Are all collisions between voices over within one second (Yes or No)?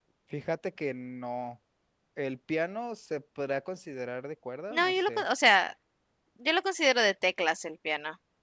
Yes